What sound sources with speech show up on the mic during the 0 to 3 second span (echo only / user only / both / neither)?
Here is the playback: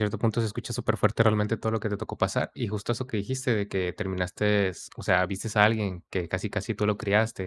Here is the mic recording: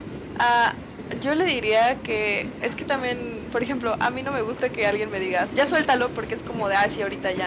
user only